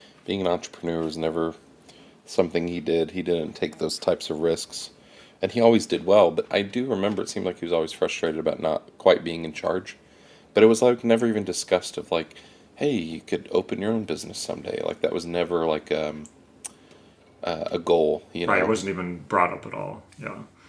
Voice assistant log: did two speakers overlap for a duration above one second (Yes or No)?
No